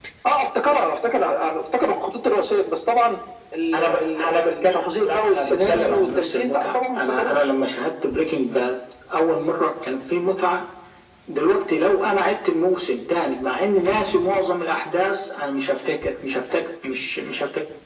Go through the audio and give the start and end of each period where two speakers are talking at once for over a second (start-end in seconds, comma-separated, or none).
3.7-7.5